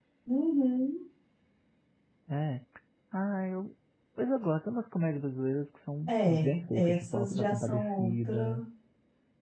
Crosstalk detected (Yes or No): Yes